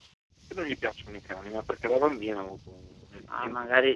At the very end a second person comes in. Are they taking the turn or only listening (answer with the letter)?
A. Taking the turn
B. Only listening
A